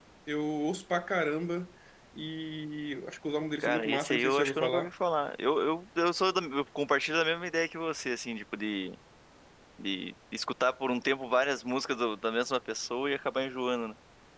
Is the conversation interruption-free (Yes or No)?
No